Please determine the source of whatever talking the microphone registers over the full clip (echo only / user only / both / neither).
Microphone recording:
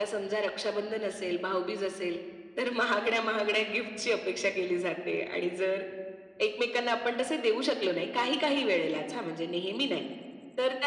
echo only